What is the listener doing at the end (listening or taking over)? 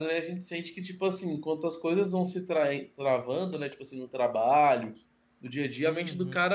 listening